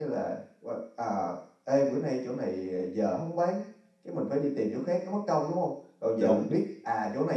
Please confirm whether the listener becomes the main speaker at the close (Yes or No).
No